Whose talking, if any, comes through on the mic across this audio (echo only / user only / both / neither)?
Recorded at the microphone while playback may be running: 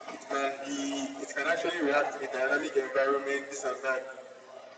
echo only